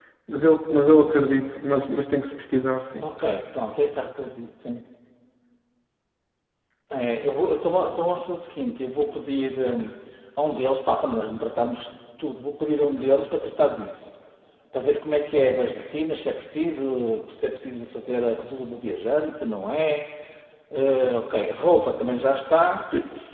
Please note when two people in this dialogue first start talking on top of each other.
none

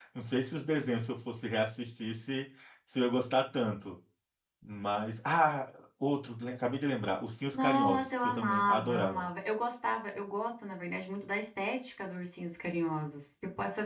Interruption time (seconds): 7.5 s

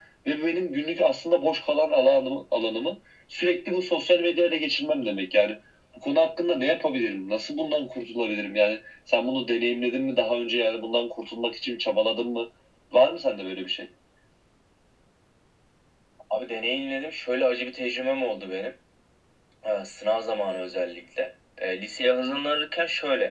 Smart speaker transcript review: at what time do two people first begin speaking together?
none

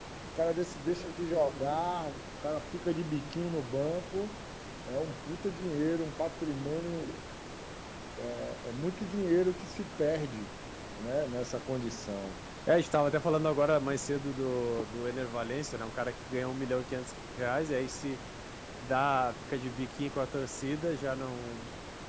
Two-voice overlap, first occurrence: none

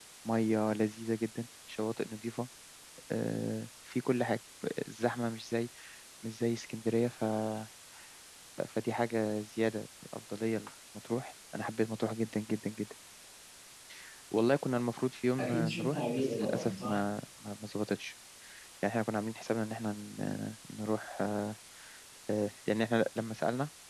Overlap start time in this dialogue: 15.4 s

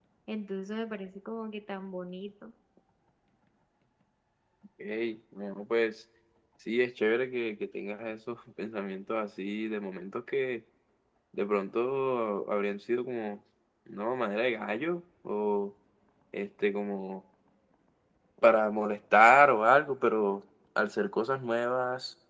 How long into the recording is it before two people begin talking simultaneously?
none

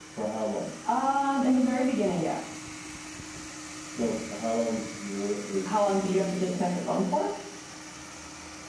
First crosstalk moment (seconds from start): 5.7 s

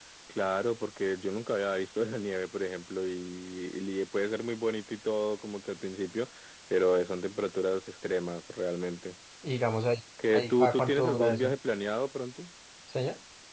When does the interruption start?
10.2 s

